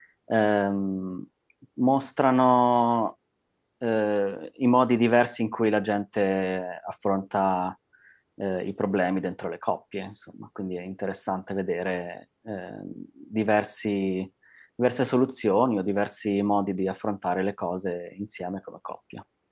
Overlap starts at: none

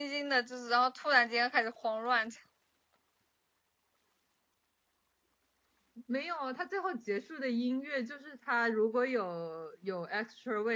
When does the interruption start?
none

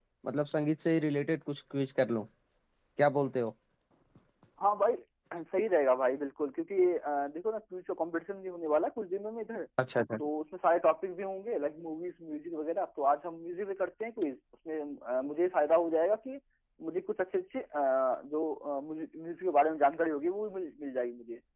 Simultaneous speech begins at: none

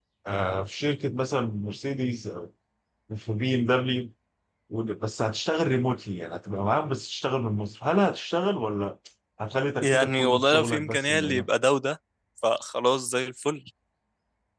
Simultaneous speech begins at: 9.8 s

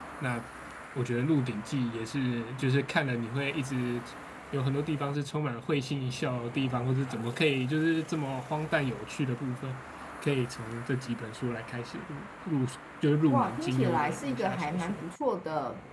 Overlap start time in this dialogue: 13.3 s

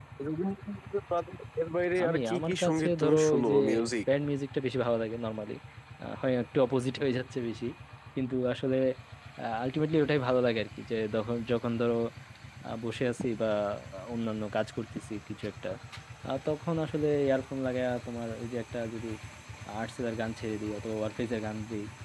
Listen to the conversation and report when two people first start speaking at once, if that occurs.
2.0 s

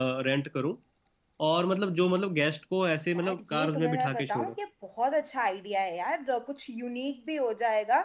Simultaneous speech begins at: 3.1 s

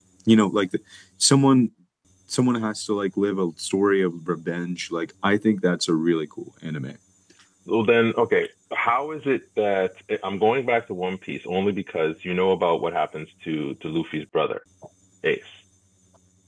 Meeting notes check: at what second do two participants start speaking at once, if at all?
none

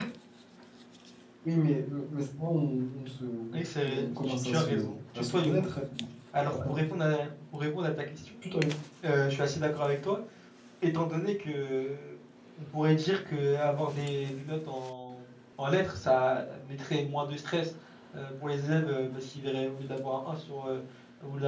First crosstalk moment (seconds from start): 3.5 s

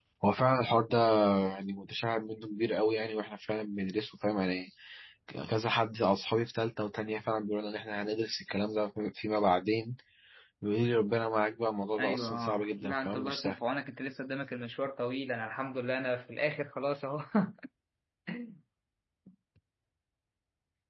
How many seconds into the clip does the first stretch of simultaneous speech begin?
12.0 s

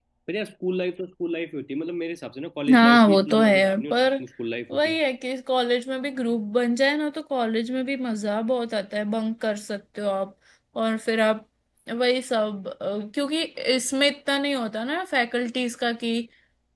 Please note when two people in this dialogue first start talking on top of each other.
2.7 s

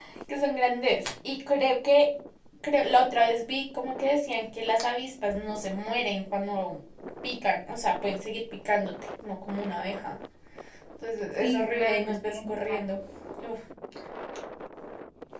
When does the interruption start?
11.4 s

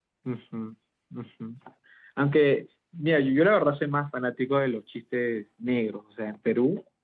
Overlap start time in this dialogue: none

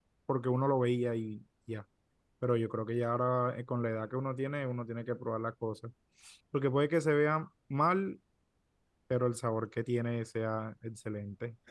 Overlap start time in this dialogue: none

